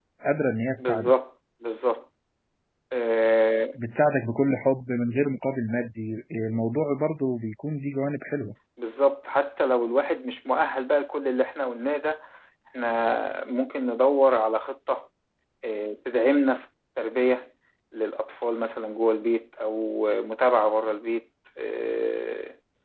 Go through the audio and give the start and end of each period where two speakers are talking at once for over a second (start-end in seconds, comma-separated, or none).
none